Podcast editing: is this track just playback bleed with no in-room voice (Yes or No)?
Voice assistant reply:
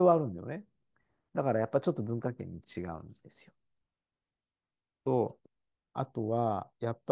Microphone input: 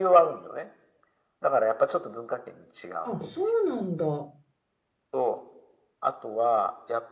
No